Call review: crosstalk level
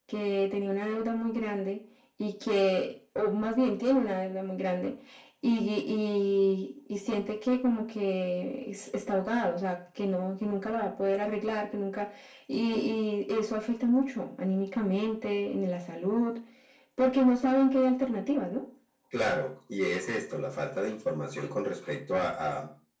none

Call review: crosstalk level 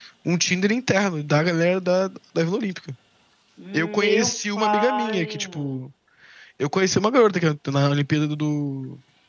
present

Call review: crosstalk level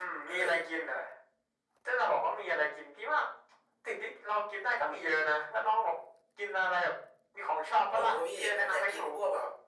present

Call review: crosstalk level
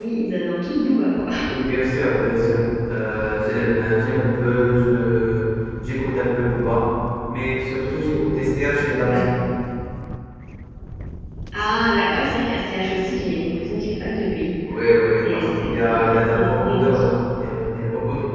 present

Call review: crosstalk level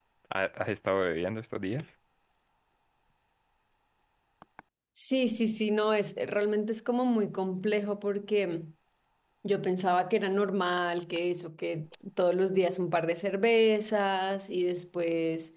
none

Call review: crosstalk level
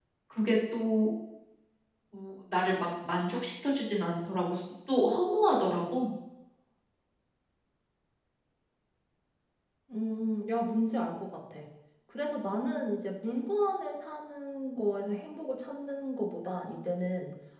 none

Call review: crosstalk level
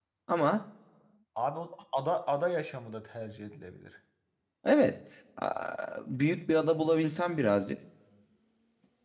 none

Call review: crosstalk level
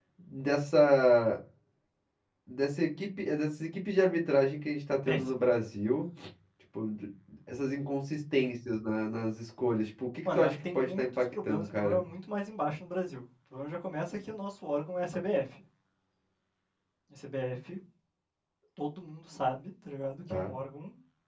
present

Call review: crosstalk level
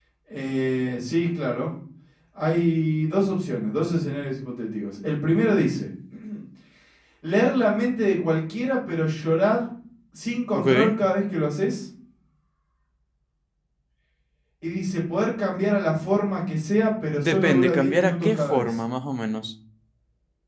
present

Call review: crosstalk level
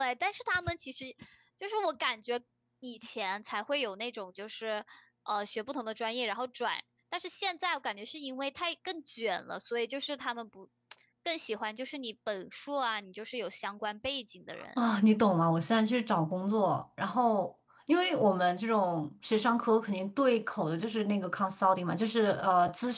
none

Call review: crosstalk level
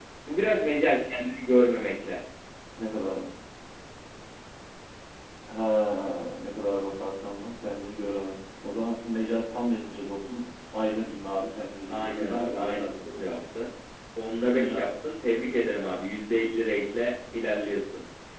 present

